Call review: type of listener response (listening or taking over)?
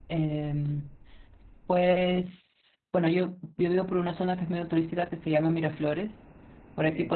listening